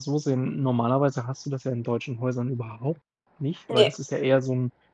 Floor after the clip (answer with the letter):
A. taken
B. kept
B